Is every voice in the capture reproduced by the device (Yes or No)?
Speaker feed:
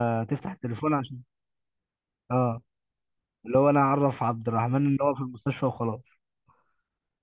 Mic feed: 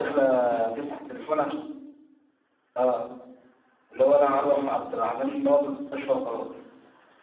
Yes